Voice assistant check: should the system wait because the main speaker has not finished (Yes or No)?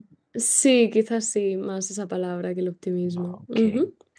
No